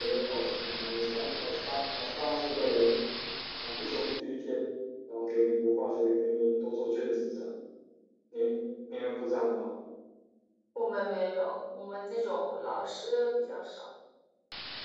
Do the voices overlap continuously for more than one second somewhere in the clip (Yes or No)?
No